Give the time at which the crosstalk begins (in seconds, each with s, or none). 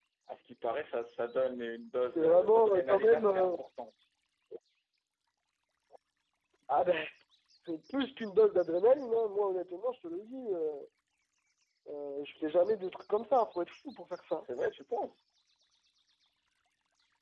2.1 s